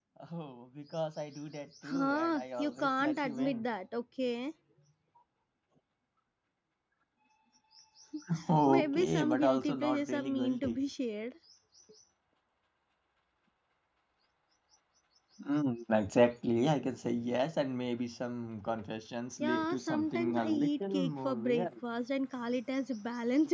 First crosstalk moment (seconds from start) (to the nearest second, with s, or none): 2 s